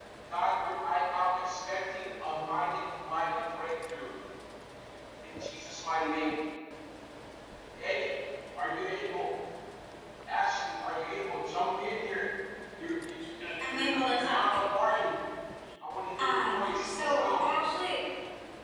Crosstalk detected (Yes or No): Yes